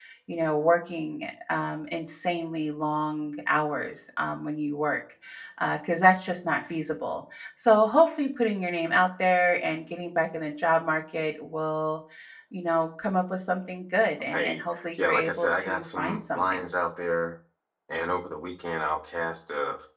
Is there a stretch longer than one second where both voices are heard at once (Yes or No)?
Yes